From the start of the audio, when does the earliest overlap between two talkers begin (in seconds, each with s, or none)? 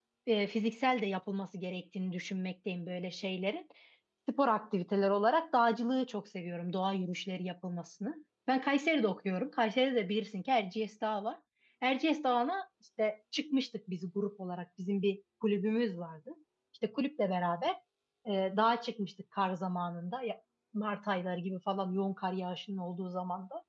none